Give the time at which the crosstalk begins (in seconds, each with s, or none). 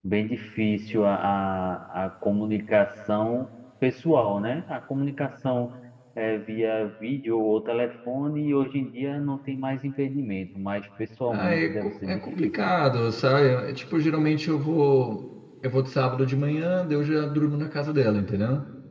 11.3 s